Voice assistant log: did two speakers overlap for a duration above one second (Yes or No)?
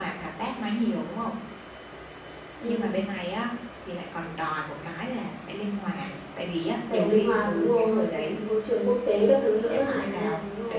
Yes